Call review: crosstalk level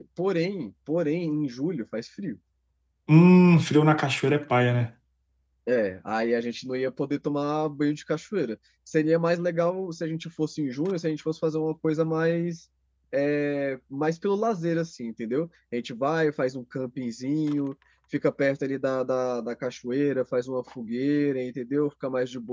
none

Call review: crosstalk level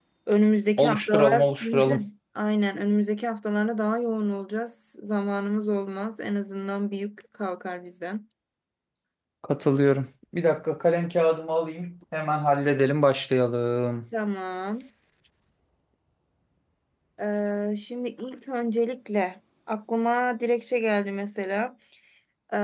present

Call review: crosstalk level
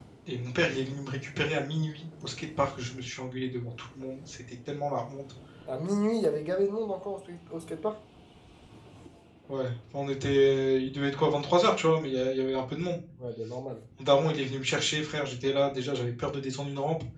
none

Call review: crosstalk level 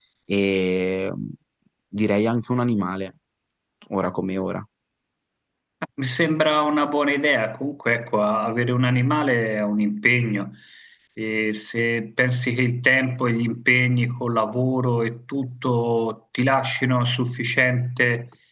none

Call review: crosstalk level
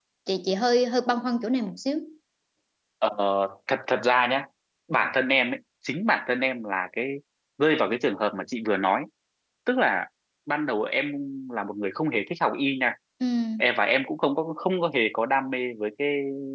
none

